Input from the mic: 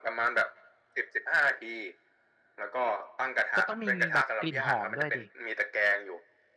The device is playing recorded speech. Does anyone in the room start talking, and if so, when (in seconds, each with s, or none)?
3.6 s